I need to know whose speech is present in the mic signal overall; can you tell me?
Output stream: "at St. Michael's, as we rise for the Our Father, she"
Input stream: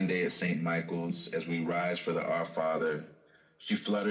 echo only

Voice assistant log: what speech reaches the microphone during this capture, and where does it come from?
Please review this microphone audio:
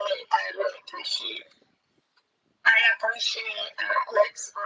echo only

